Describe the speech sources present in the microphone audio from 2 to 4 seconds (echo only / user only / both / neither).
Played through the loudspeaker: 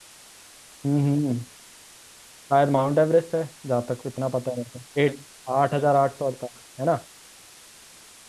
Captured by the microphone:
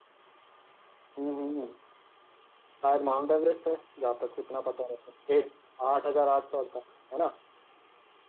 echo only